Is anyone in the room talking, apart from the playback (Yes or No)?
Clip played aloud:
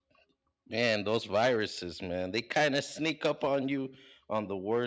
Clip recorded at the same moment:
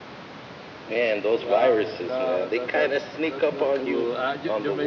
Yes